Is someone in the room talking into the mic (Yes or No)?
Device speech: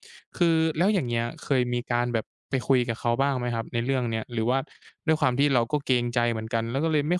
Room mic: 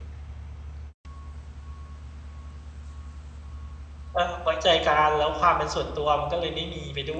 Yes